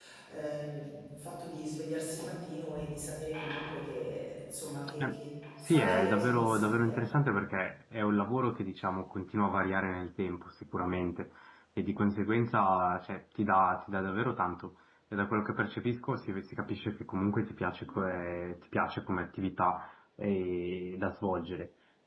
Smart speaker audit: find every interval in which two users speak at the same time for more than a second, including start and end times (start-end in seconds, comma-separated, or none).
5.6-7.2